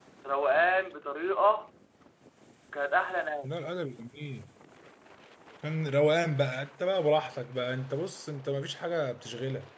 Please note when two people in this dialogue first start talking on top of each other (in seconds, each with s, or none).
none